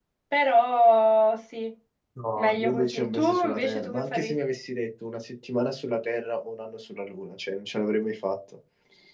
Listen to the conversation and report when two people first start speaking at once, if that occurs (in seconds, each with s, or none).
2.4 s